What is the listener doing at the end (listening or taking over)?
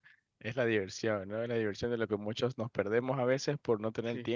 listening